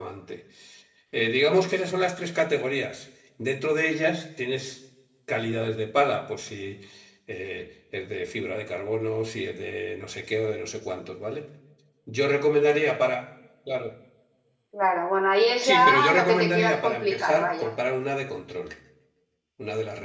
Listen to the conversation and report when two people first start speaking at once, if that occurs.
15.6 s

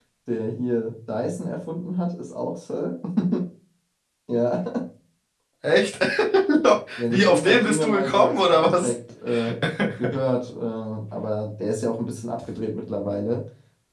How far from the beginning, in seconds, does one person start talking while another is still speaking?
7.1 s

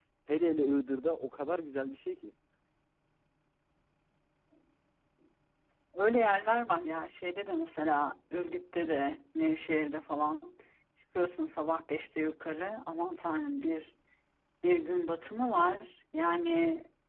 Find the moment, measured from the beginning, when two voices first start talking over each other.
none

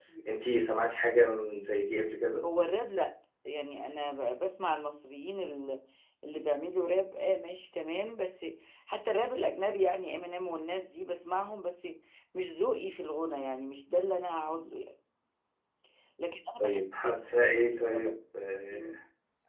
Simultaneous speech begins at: 16.6 s

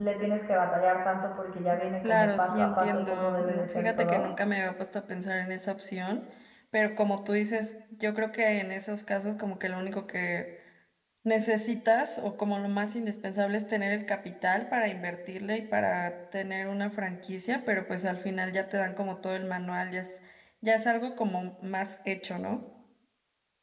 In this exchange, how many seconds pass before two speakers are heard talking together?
2.0 s

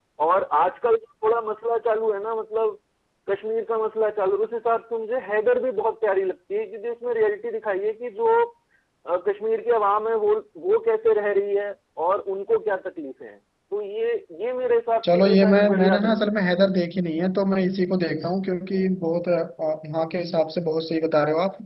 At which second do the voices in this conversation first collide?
15.0 s

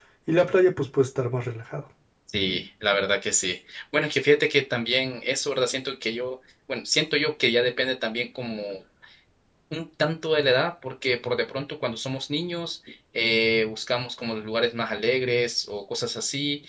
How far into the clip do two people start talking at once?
none

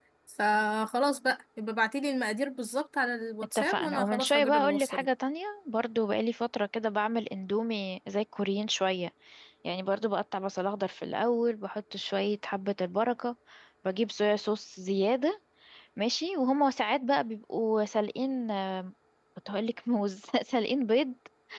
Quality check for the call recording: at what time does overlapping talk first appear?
3.5 s

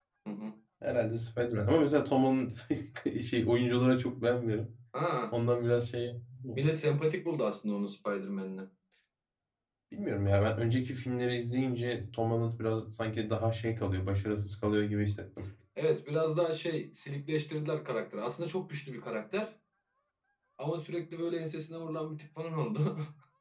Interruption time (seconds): none

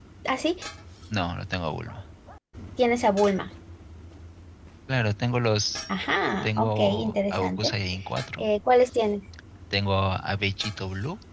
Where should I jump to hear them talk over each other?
6.4 s

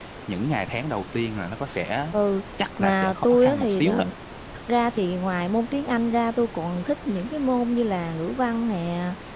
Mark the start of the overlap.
2.8 s

